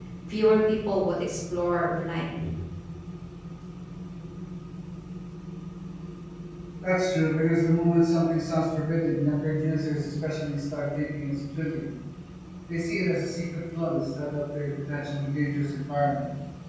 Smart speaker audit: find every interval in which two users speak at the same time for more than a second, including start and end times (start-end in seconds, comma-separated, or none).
none